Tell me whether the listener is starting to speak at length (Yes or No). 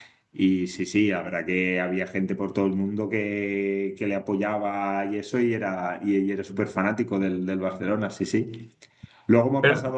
No